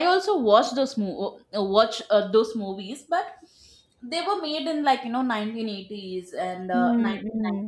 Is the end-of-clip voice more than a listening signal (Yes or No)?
No